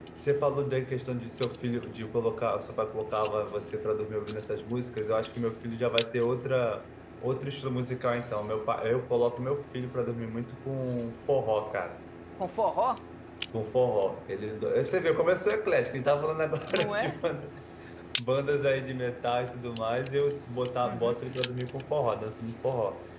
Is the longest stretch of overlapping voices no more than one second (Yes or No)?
Yes